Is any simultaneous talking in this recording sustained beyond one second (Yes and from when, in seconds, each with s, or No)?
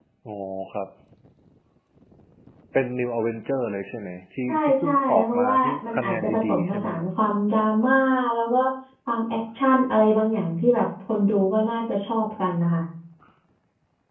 Yes, from 4.5 s